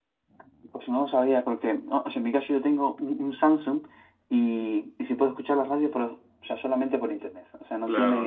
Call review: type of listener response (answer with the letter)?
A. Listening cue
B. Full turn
B